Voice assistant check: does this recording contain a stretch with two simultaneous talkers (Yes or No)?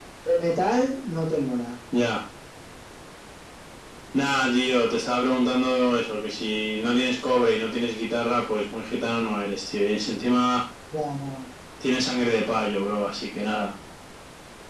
No